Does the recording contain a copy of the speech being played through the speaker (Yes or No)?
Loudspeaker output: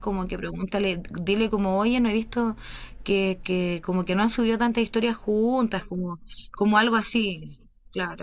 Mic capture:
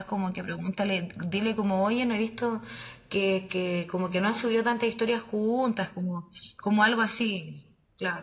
Yes